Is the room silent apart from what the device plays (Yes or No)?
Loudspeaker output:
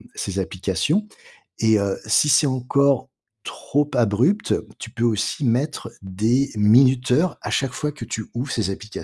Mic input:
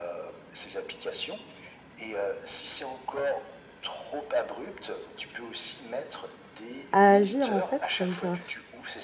No